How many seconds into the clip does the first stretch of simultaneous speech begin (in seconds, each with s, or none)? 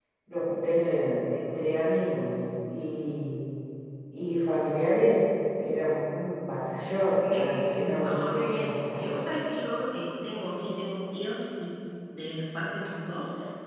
7.2 s